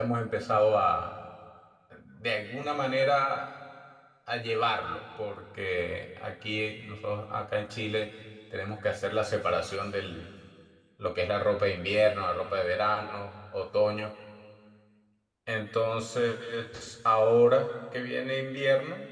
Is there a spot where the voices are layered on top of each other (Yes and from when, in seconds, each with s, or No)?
No